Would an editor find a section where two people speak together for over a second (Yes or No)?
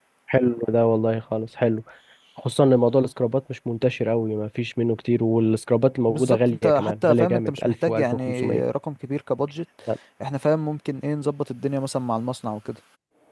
Yes